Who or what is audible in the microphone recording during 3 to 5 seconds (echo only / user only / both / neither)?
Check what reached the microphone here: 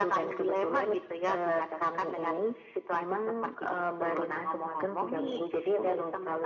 echo only